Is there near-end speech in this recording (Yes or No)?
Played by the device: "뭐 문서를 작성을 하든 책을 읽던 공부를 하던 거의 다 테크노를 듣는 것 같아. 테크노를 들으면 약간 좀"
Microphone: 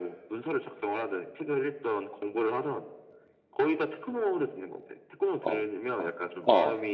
Yes